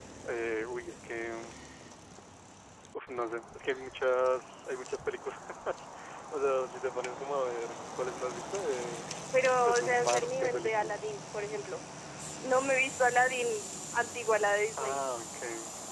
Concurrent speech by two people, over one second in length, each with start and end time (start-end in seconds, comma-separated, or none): 9.4-10.9